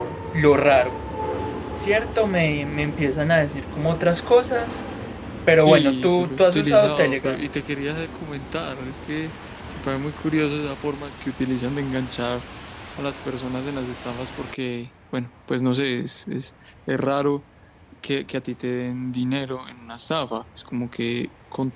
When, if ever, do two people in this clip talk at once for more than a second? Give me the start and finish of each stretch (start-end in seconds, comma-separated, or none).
5.7-7.5